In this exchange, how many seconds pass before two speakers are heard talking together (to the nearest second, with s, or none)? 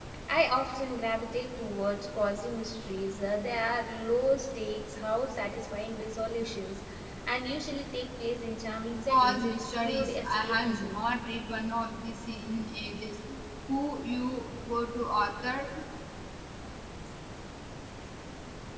9 s